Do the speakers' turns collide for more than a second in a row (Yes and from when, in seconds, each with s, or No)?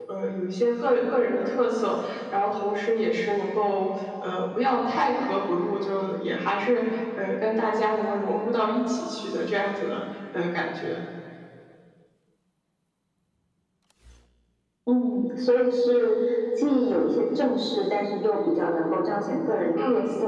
No